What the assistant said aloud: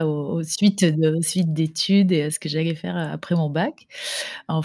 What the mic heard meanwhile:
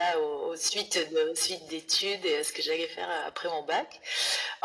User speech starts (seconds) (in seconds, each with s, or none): none